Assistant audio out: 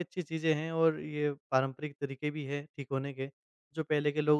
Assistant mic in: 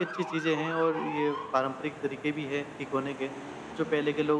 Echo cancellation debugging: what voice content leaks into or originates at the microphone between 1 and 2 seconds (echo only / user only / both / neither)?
echo only